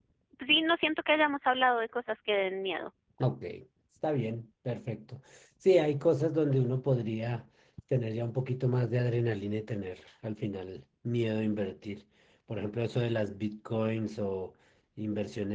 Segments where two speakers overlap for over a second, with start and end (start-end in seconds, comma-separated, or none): none